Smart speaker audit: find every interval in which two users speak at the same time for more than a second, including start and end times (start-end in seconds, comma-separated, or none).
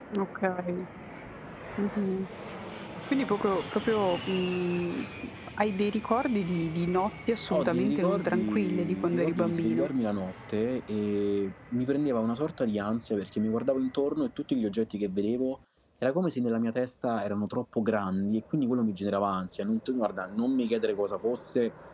7.5-9.9